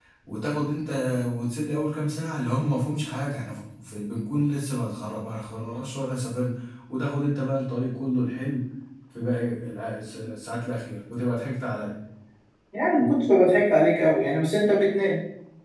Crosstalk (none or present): none